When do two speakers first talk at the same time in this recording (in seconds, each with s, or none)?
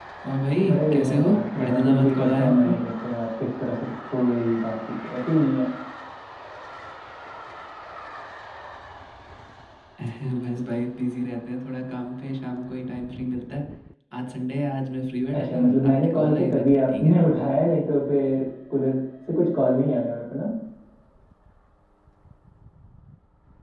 0.7 s